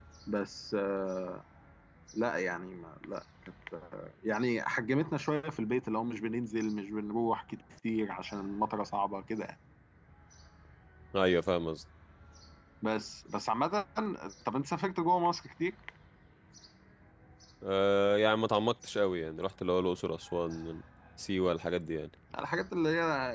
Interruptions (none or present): none